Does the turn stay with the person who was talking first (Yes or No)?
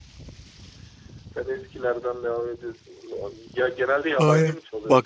No